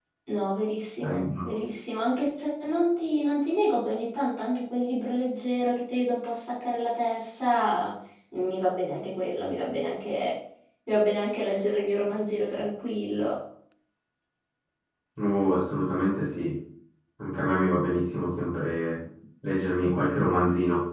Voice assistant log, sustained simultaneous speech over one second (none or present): none